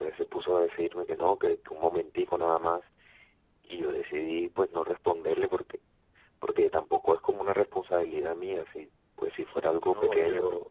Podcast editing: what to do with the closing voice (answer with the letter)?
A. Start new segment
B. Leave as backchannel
A